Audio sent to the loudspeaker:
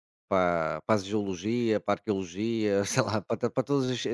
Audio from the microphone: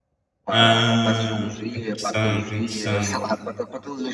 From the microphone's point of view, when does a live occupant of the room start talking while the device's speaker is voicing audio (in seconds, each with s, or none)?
0.5 s